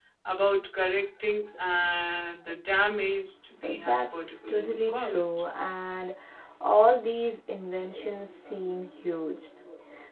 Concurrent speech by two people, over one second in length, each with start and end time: 3.6-5.3

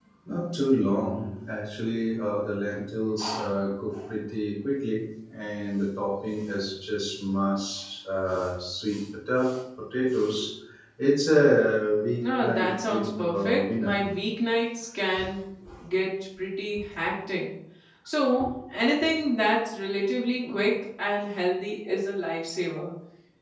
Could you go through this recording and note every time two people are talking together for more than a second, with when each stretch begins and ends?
12.2-14.0

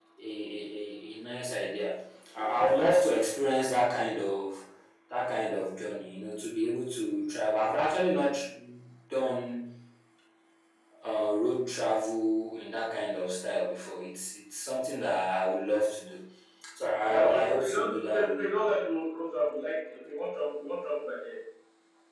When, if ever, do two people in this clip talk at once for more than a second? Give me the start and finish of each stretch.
17.0-18.4

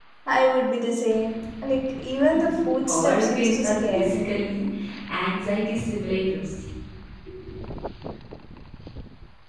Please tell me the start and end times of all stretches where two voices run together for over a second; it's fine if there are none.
2.9-4.3

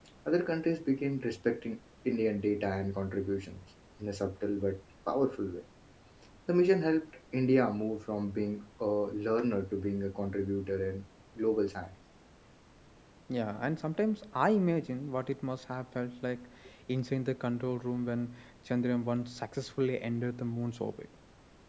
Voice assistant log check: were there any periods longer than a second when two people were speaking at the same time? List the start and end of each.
none

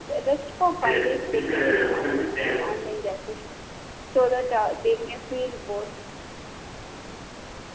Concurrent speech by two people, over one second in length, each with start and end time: 0.8-2.6

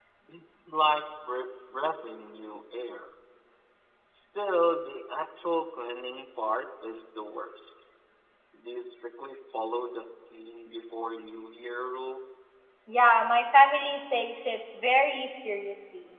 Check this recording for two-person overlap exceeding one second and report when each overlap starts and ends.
none

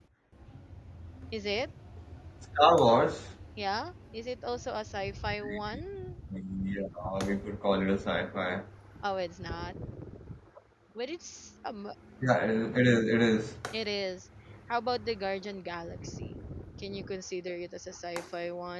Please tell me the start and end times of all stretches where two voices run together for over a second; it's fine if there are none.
none

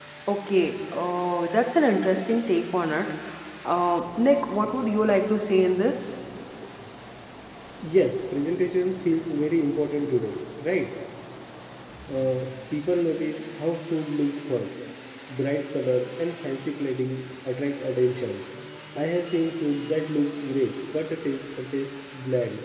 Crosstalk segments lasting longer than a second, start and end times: none

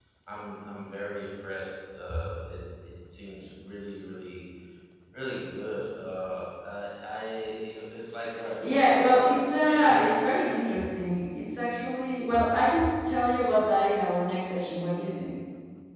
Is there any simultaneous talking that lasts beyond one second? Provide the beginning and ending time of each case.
8.6-10.5

